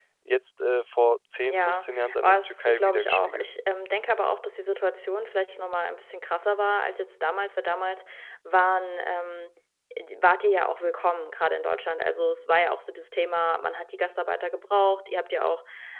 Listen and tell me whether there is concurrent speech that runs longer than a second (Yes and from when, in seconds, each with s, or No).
Yes, from 1.5 s